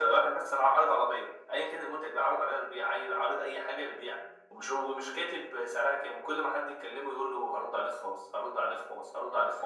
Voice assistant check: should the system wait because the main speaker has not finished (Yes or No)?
No